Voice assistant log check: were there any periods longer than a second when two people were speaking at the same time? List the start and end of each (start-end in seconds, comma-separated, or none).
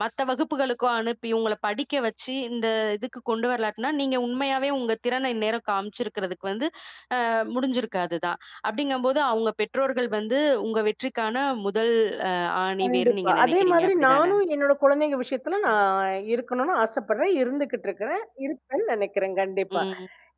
12.8-14.3